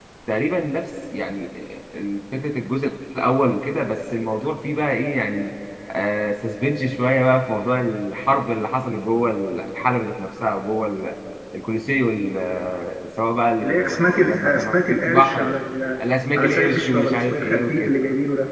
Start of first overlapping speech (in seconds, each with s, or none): 13.6 s